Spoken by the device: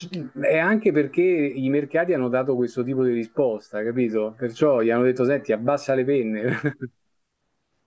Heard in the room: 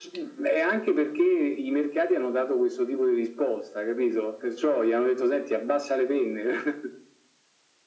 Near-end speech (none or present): none